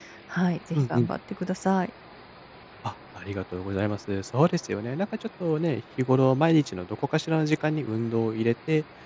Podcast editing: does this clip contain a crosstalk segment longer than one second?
No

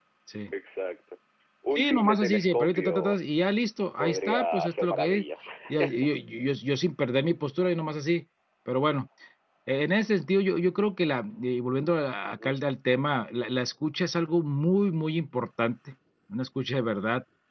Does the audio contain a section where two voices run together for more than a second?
Yes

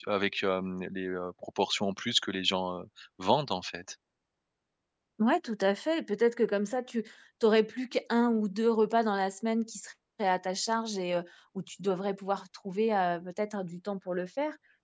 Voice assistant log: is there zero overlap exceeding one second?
Yes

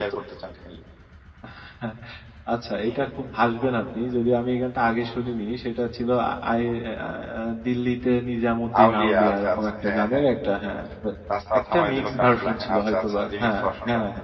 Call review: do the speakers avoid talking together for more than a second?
No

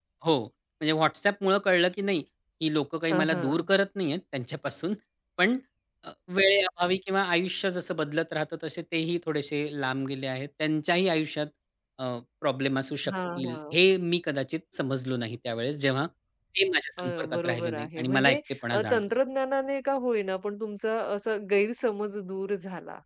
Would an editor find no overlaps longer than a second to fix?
No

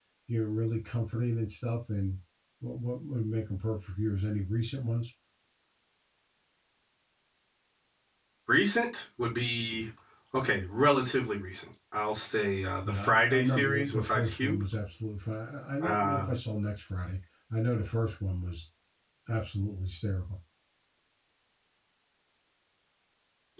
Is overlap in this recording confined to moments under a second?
No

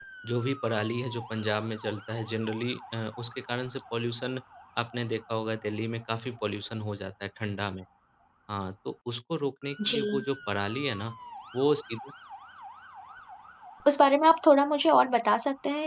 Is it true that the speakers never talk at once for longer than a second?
Yes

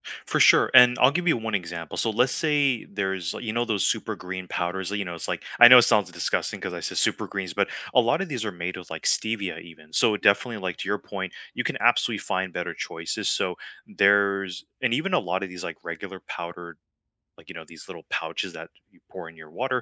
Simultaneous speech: No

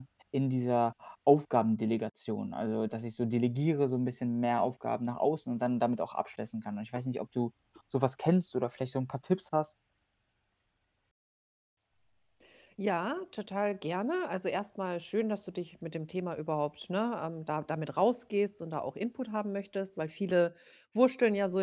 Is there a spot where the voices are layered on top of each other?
No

